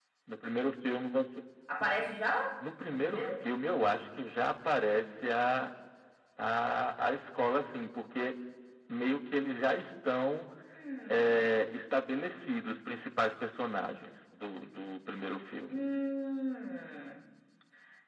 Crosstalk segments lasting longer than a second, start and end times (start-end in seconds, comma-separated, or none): none